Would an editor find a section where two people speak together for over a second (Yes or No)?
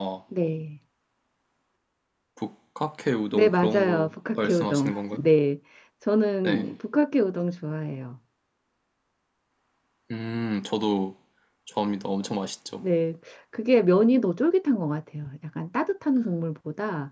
Yes